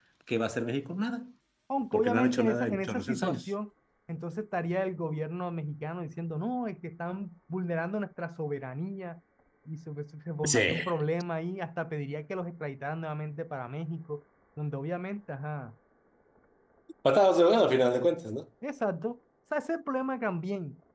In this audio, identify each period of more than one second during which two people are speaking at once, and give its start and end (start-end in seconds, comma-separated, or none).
1.9-3.5